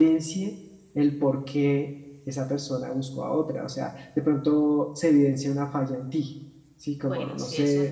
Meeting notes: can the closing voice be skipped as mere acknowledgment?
No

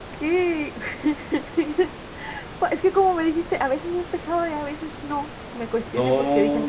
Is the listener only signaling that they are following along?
No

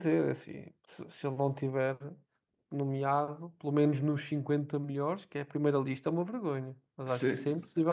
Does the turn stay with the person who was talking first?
No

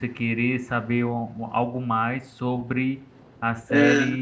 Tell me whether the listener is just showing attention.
Yes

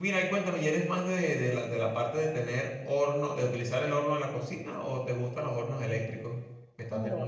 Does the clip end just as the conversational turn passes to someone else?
Yes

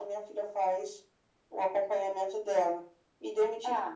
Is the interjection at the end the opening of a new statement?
No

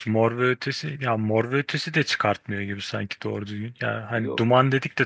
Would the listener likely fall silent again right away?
Yes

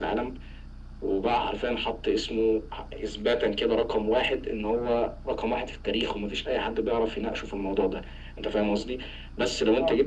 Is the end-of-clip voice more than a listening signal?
No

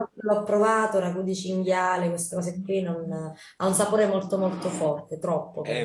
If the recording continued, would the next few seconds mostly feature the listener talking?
Yes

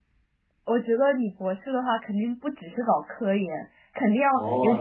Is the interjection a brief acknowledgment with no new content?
No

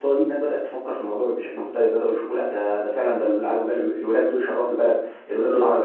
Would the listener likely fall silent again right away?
Yes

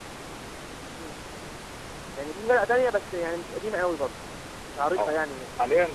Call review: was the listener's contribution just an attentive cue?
No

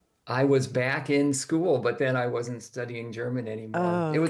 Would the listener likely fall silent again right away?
Yes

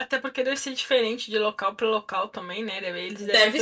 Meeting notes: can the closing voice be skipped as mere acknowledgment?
Yes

